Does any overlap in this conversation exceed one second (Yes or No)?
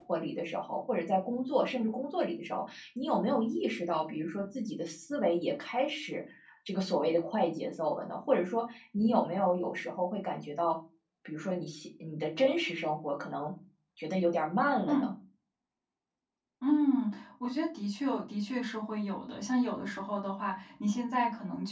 No